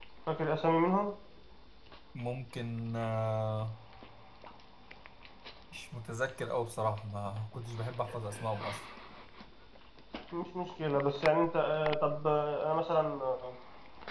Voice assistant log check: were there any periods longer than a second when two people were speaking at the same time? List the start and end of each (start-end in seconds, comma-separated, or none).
none